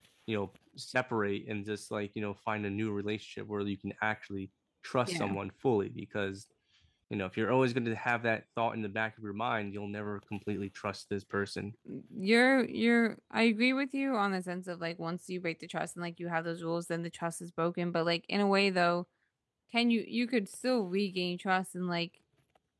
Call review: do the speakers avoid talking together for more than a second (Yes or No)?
Yes